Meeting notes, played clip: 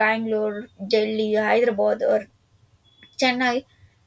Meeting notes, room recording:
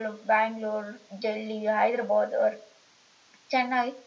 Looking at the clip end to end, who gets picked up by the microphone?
echo only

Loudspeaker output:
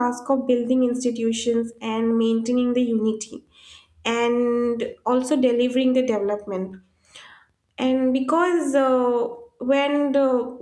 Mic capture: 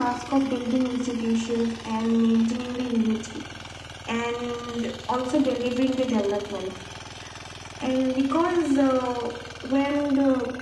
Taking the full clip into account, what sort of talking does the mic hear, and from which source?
echo only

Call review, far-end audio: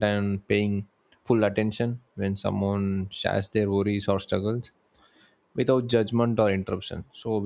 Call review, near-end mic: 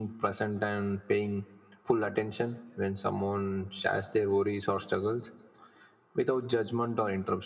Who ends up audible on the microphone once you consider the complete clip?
echo only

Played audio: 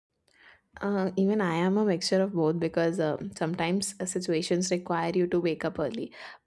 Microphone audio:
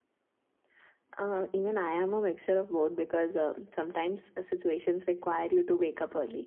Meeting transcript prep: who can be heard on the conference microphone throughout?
echo only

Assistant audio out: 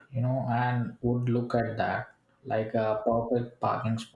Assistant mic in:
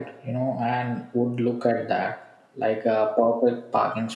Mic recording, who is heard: echo only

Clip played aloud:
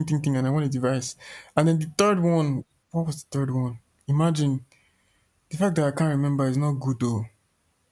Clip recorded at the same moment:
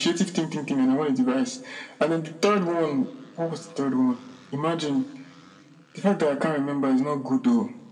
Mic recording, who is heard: echo only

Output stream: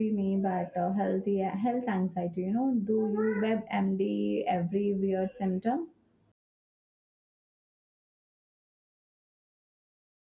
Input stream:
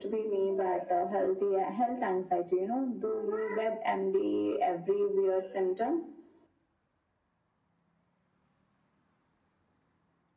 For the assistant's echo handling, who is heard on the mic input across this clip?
echo only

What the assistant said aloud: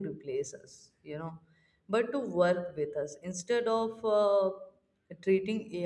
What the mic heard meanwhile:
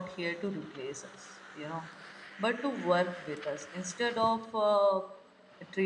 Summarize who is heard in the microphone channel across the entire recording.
echo only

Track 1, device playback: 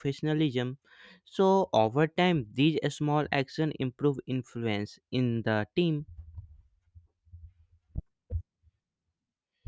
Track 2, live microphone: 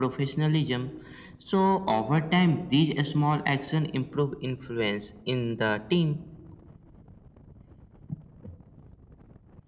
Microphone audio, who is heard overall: echo only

